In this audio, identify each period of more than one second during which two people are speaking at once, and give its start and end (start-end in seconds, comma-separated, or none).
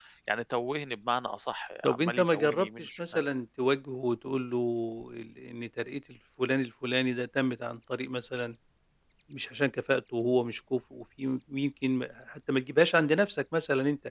1.8-3.2